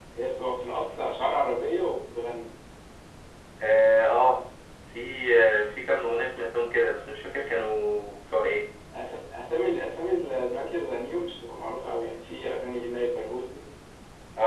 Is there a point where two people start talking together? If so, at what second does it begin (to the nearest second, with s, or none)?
none